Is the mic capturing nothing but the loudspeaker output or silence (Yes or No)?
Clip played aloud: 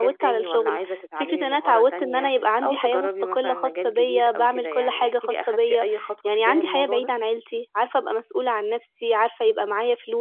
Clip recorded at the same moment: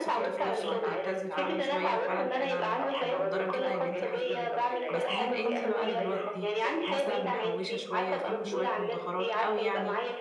No